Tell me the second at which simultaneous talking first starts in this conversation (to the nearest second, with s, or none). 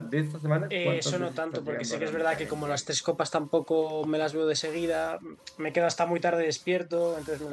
1 s